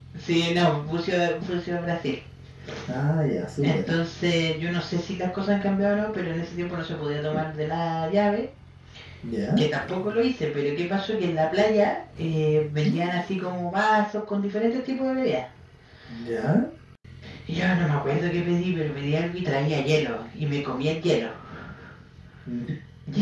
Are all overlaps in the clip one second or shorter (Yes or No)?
Yes